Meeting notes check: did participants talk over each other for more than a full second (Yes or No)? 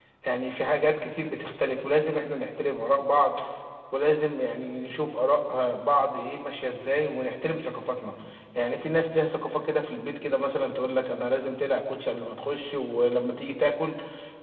No